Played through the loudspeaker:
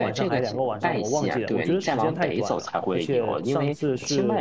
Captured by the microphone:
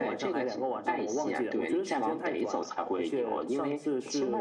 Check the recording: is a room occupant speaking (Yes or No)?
No